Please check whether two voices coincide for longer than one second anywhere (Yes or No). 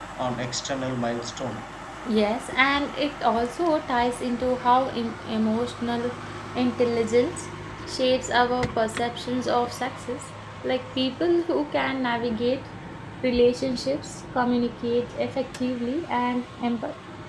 No